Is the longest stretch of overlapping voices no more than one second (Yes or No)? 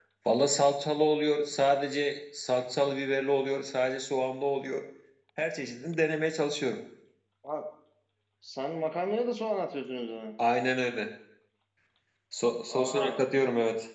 Yes